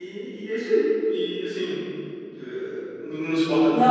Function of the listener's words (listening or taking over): listening